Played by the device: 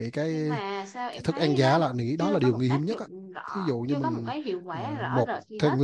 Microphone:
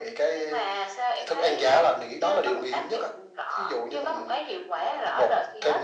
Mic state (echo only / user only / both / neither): echo only